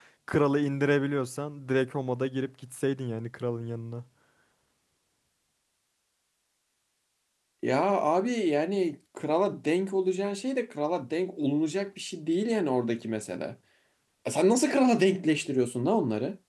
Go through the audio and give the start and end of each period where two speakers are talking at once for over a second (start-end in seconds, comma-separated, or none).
none